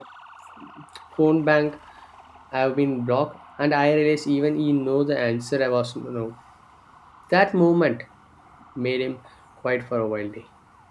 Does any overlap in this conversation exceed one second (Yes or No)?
No